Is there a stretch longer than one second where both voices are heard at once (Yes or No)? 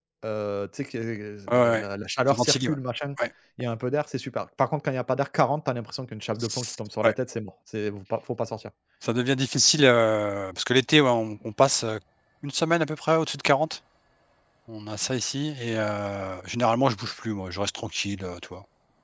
No